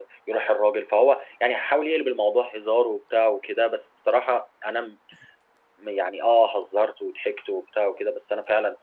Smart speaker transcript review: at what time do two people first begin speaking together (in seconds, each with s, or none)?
none